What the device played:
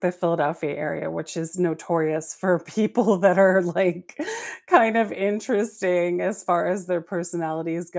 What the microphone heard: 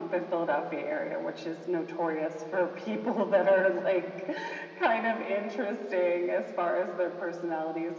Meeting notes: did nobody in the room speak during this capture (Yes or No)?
Yes